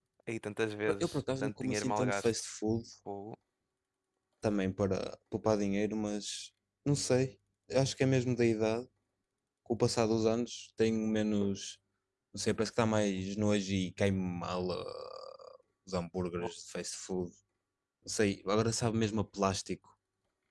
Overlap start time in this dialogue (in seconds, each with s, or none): 1.0 s